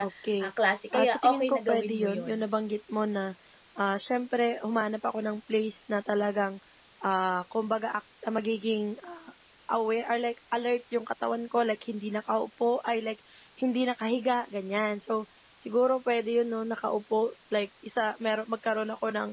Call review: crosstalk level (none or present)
present